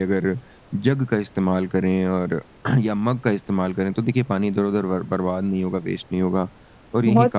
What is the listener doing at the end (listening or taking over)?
listening